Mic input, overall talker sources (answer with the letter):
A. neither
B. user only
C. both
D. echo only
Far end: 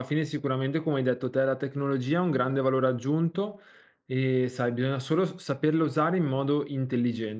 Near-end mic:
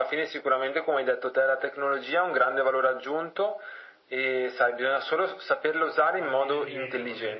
C